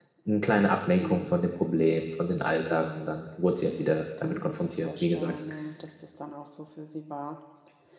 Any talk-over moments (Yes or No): Yes